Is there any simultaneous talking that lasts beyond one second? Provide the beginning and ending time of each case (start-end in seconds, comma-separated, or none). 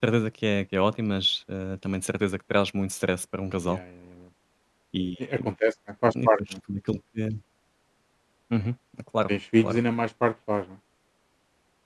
none